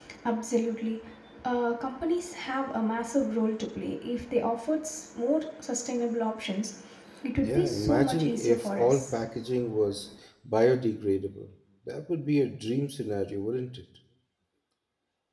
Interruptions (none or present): present